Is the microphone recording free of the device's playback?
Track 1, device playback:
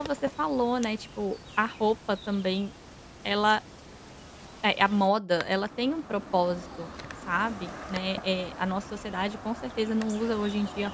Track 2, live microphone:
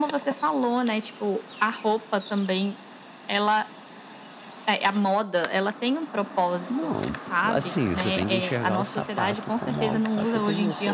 No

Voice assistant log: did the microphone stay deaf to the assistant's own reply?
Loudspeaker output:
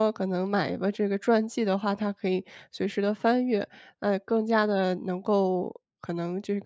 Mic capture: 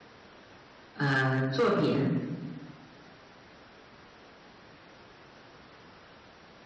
Yes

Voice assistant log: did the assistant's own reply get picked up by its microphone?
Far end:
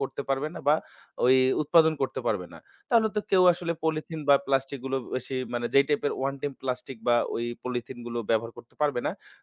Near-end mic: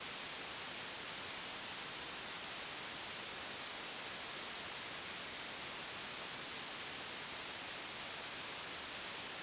No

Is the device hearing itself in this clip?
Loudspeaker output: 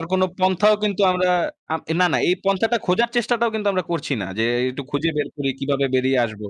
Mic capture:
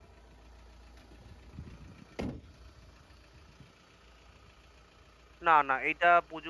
No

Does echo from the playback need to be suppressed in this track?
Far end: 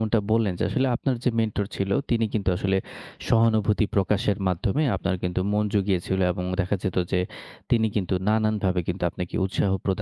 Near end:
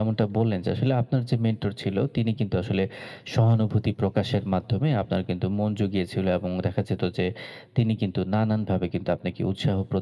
Yes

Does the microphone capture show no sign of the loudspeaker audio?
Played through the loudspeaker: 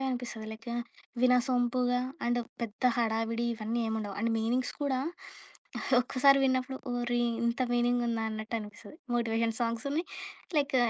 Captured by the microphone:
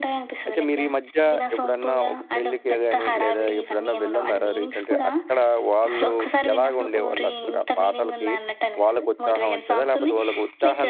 No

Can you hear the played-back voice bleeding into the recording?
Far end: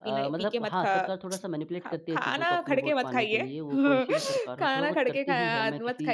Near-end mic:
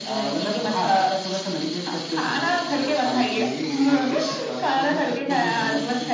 Yes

